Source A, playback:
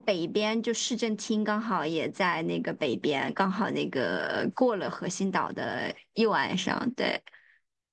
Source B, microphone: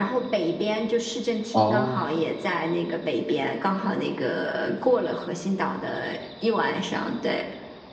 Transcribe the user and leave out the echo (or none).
啊，